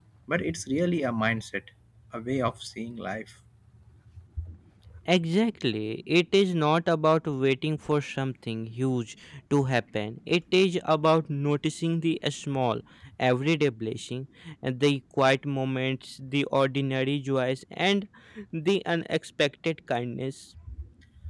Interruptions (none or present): none